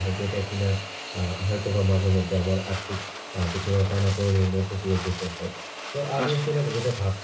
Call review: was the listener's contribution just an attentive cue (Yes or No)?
Yes